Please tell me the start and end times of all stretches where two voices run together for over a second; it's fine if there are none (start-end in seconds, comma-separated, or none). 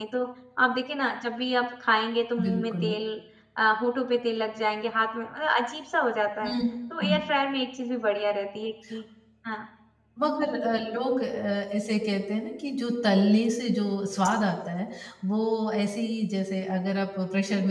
none